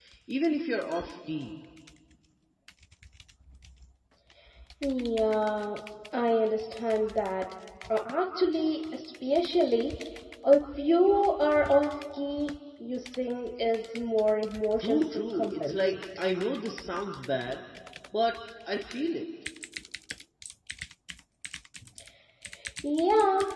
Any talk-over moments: Yes, from 14.8 s

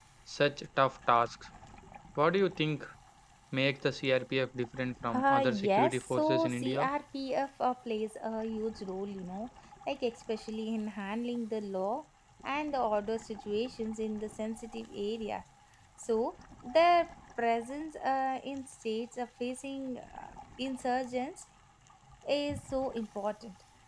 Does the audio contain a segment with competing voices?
Yes, from 5.1 s

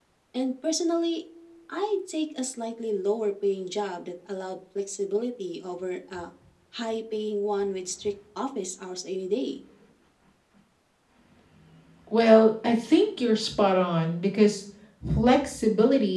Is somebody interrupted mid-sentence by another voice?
No

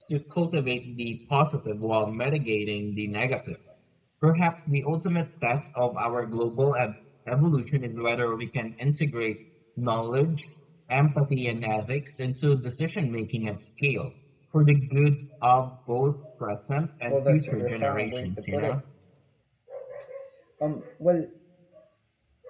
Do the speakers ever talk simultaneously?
Yes, from 17.1 s

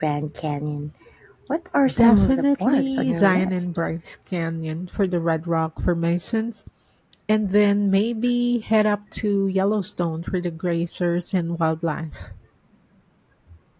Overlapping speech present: Yes, from 1.9 s

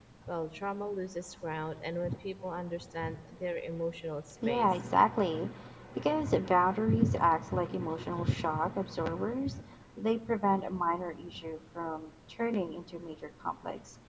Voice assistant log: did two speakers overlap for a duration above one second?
No

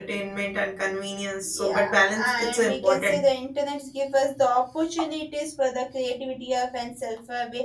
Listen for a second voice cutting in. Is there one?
Yes, from 1.5 s

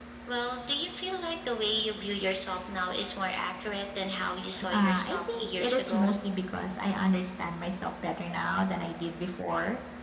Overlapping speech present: Yes, from 4.7 s

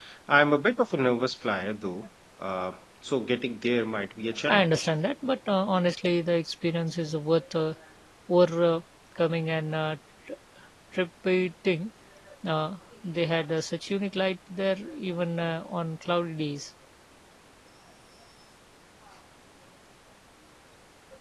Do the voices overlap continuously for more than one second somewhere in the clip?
No

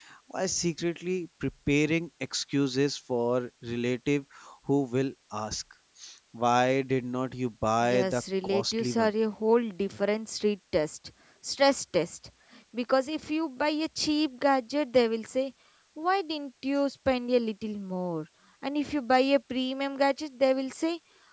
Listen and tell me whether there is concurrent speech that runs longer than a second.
Yes, from 7.8 s

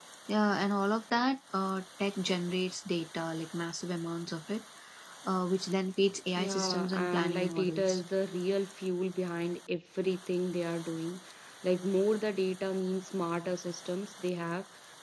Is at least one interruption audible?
Yes, from 6.4 s

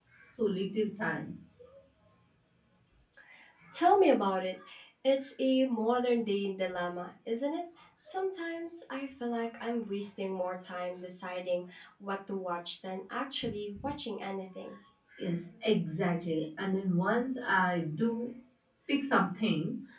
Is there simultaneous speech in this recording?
No

